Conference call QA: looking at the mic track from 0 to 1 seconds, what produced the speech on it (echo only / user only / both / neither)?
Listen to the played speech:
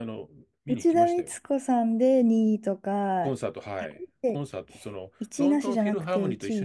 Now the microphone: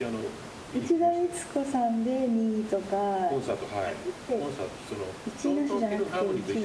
echo only